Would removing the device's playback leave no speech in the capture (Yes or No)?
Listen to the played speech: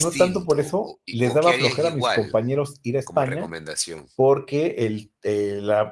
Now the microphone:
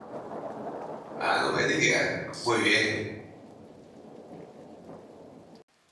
No